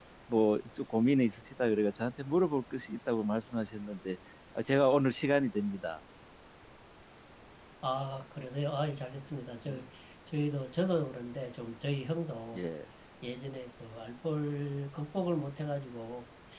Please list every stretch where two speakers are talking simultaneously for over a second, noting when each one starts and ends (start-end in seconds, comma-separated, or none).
none